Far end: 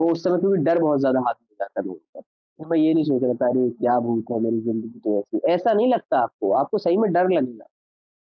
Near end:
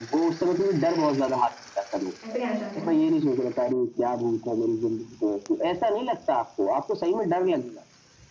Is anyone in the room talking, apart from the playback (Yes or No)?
Yes